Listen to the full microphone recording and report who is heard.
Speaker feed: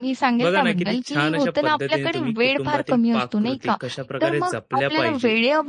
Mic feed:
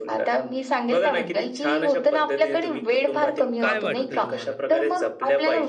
both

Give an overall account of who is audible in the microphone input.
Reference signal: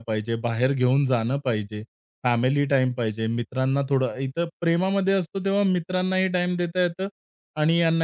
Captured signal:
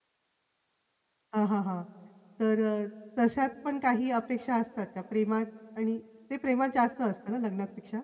user only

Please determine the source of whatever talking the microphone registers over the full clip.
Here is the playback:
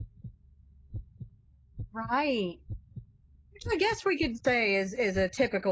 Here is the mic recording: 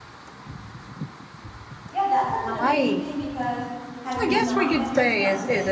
both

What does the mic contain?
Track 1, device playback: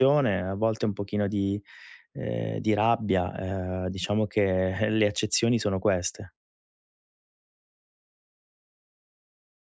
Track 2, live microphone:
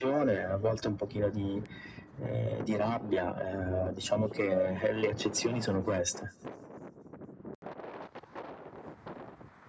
echo only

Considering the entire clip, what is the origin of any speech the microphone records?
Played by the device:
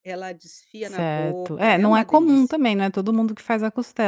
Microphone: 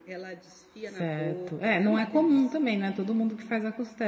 echo only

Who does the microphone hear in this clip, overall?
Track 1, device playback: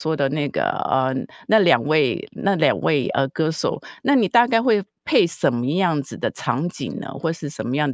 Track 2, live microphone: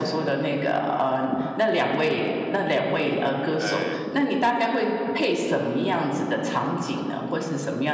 both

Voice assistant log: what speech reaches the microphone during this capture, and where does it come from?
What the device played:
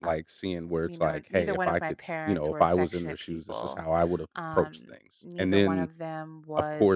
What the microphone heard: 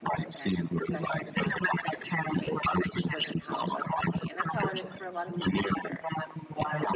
both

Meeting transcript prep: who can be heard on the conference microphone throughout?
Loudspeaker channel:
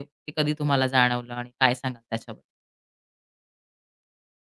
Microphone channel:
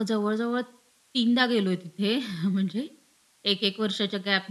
user only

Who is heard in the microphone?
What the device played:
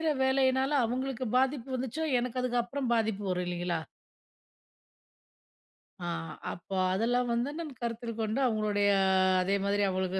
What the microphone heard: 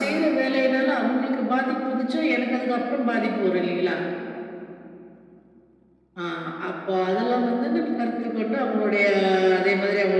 echo only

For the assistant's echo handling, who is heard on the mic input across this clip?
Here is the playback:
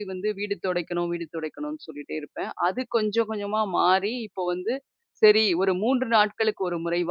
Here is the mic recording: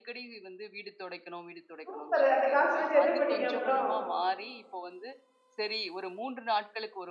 both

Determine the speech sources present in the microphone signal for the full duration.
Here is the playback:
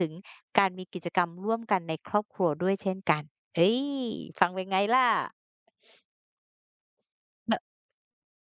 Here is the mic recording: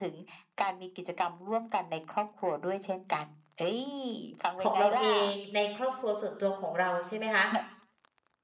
both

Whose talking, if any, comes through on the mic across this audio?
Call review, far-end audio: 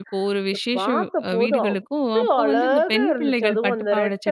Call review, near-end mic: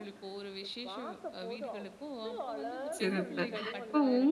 both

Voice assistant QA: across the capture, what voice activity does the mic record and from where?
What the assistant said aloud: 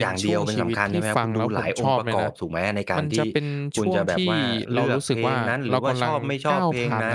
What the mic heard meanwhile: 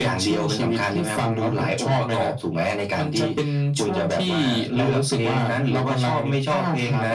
echo only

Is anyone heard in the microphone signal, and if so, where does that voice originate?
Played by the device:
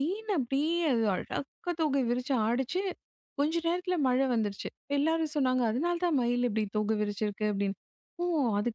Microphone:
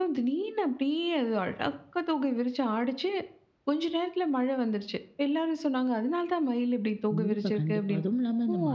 both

